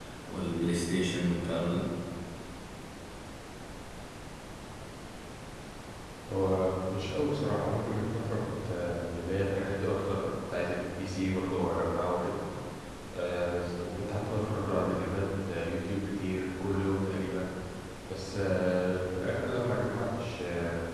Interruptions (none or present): none